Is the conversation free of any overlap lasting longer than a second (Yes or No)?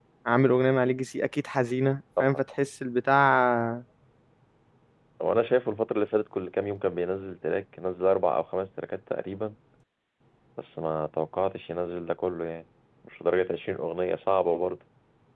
Yes